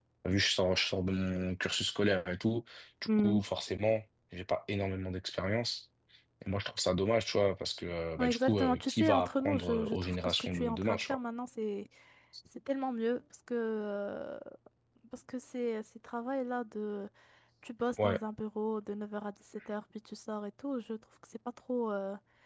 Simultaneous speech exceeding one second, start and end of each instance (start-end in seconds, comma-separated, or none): 8.2-11.2